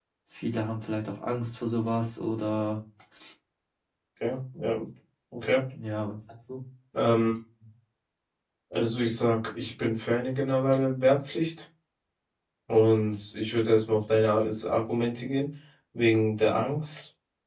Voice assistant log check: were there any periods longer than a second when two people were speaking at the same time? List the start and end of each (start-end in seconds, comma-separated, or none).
none